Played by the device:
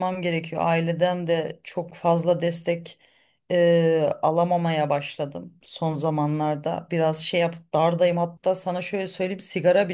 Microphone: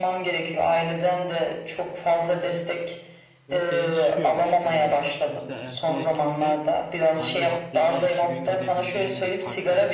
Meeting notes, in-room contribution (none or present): present